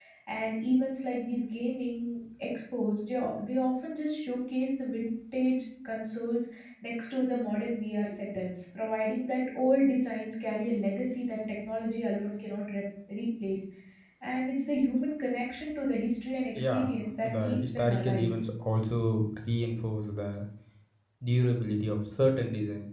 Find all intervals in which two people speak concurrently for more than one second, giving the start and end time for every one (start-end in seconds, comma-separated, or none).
16.6-18.3